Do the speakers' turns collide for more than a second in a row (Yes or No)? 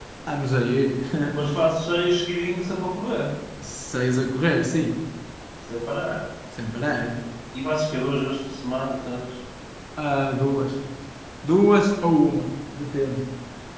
No